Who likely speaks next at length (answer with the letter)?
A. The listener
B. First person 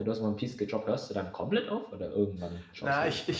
A